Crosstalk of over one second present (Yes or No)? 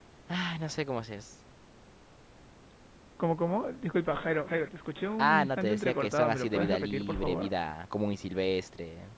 Yes